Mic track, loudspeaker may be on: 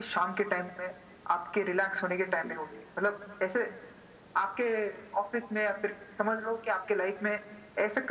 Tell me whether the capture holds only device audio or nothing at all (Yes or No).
No